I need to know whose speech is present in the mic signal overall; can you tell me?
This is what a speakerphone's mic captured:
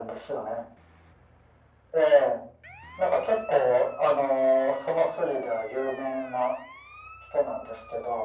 echo only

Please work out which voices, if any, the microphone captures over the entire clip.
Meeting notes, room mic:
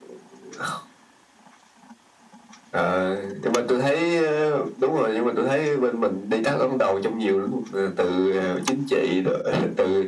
echo only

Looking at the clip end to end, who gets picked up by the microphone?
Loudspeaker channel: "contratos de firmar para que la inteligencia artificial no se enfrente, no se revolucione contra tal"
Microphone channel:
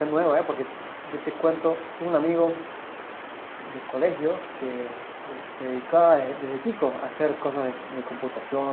user only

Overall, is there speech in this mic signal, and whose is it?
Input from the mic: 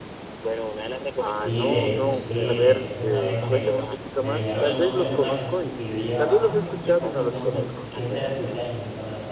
both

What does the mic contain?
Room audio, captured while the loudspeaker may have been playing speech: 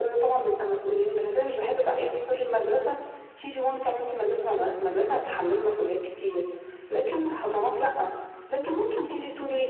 echo only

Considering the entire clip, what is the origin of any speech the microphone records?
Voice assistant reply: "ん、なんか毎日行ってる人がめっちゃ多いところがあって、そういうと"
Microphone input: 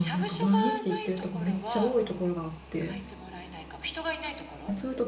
both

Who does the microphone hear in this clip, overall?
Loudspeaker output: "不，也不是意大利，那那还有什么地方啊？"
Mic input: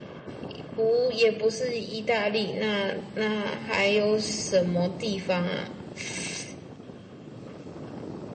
echo only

